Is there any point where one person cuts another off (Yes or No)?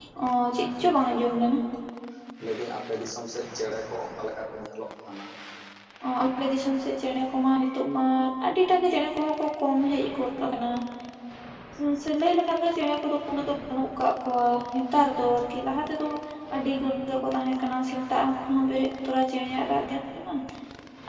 No